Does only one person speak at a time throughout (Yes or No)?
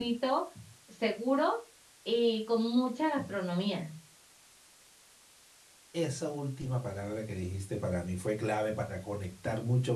Yes